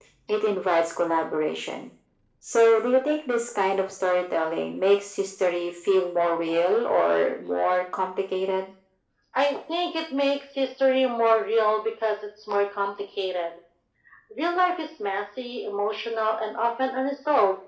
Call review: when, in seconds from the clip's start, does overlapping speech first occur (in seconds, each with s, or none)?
none